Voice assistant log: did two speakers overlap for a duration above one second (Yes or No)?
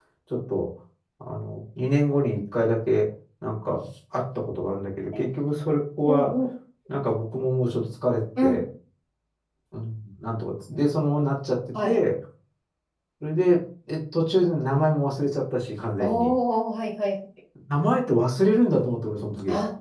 No